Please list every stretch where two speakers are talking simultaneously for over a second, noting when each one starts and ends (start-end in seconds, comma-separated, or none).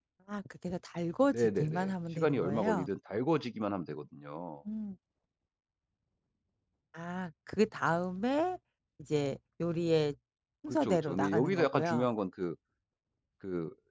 1.3-2.9, 10.7-12.1